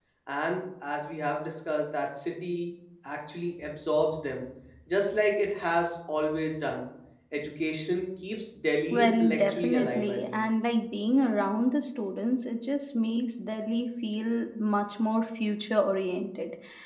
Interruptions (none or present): present